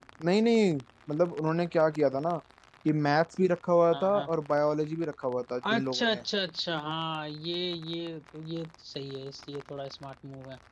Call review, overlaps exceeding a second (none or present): none